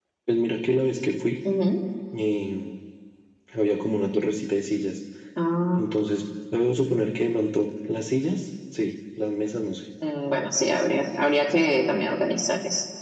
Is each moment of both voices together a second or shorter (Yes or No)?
Yes